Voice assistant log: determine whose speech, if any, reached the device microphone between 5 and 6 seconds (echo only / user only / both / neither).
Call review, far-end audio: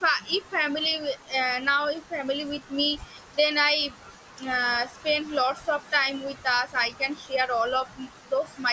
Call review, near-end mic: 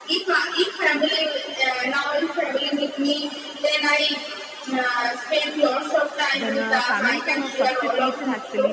echo only